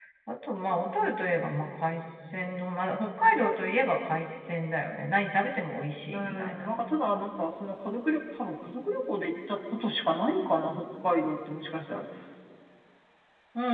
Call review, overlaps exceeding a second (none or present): none